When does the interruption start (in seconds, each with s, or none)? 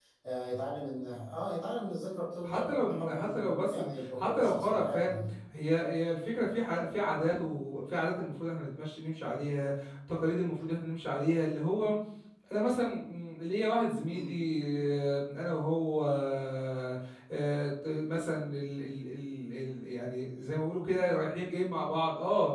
2.4 s